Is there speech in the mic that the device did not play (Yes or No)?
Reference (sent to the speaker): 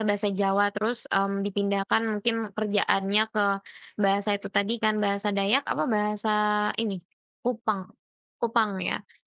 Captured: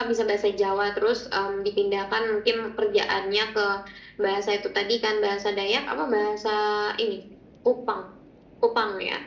No